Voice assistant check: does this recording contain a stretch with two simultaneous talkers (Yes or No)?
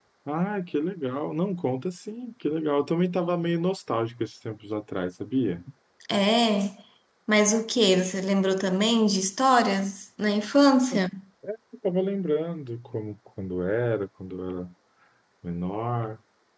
No